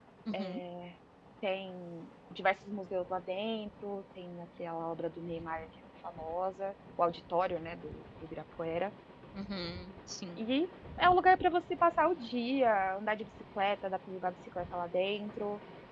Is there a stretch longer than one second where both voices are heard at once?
No

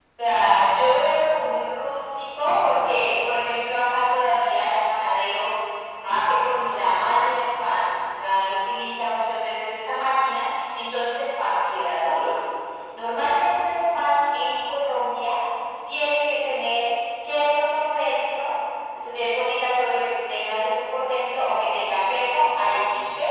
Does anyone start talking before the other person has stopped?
No

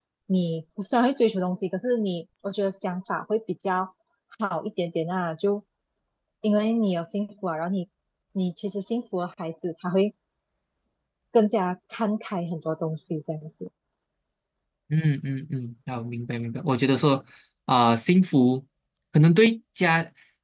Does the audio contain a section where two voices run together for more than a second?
No

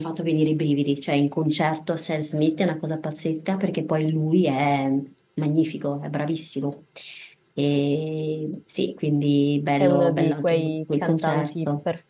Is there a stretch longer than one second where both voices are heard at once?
Yes, from 9.8 s

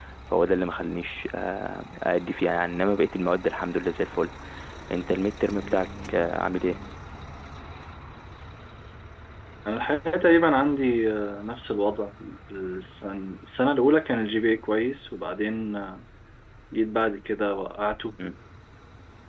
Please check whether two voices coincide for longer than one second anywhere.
No

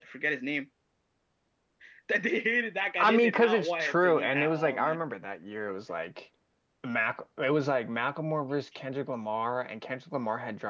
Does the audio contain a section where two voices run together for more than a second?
Yes, from 3.0 s

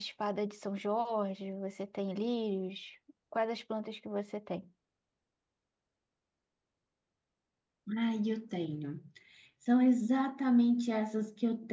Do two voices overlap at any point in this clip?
No

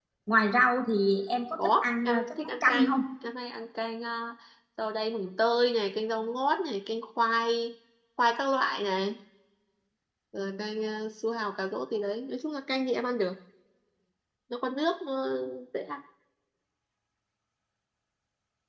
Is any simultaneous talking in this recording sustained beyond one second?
Yes, from 1.6 s

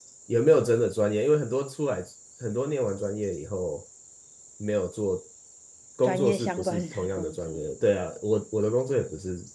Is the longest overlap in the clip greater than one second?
Yes, from 6.0 s

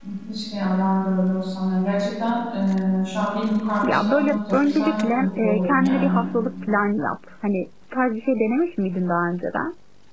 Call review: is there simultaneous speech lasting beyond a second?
Yes, from 3.8 s

